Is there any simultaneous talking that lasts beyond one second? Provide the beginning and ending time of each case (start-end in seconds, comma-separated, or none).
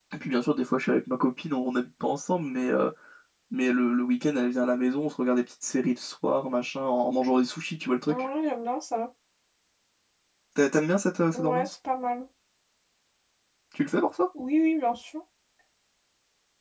none